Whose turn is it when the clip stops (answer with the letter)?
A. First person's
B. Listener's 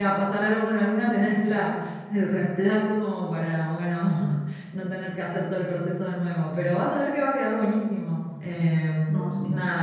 A